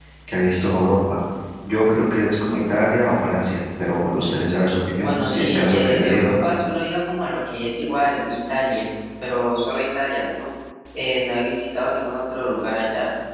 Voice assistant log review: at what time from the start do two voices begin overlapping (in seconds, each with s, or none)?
5.0 s